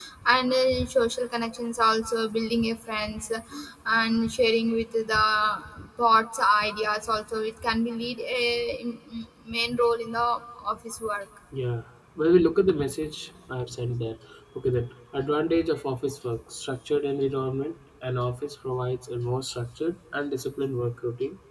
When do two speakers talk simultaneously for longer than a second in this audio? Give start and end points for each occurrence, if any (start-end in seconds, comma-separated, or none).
none